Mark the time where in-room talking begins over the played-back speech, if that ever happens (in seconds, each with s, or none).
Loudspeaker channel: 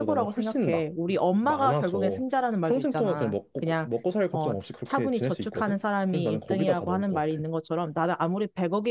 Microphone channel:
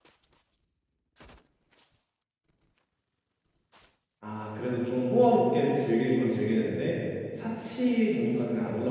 4.2 s